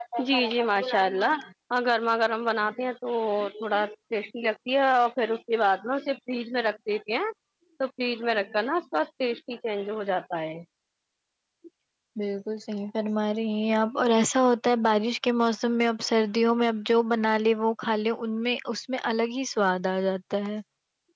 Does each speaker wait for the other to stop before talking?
Yes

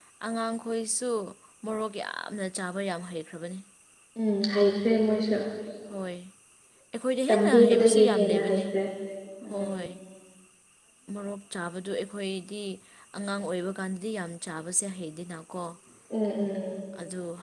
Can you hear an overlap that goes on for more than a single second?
Yes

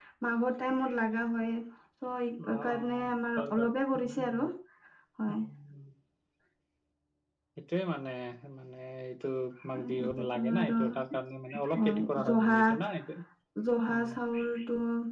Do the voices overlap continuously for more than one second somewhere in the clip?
Yes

